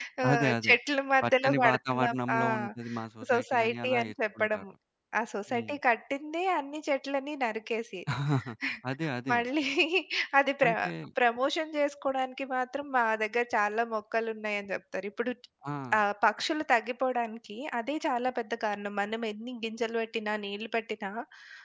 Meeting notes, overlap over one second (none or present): present